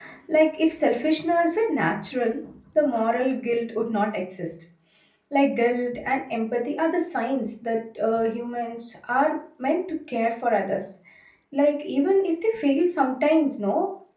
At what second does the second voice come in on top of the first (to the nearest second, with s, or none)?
none